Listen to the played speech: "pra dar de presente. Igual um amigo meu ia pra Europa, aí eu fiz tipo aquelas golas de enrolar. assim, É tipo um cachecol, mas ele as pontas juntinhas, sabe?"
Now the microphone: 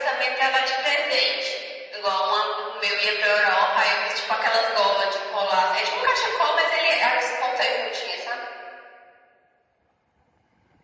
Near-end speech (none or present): none